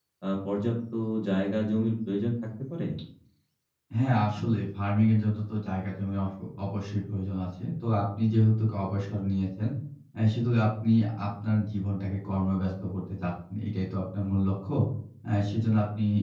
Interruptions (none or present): none